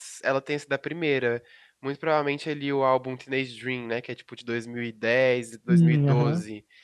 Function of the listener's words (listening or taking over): listening